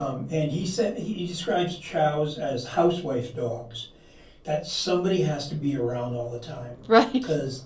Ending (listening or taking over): listening